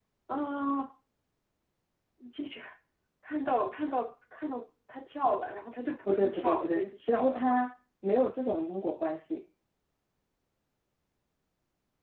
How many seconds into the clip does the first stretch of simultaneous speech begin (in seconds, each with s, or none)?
6.1 s